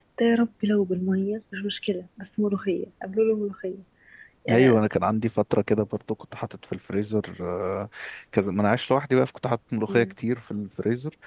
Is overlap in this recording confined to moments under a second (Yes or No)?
Yes